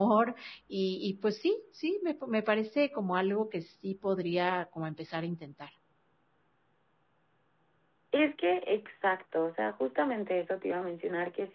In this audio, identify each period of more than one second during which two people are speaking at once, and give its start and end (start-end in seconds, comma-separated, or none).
none